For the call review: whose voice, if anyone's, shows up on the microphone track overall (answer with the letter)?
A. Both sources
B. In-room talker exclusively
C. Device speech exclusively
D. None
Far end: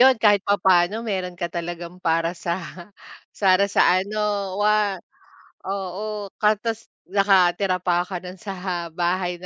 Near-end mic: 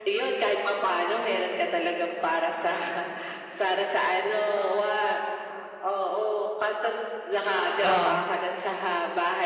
A